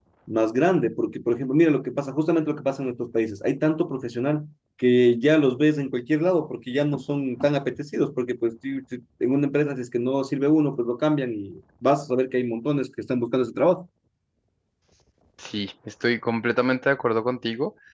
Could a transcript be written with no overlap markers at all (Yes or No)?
Yes